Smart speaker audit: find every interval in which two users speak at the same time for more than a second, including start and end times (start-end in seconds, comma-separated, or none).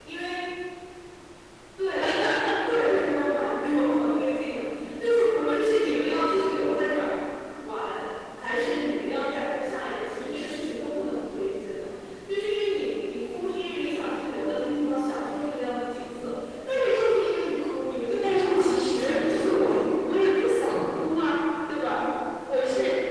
18.2-20.1